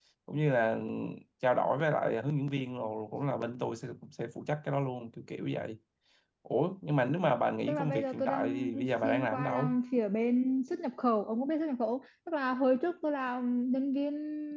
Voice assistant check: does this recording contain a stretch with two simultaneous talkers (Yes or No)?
Yes